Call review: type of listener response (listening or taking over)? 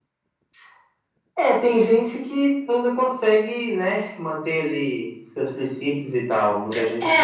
taking over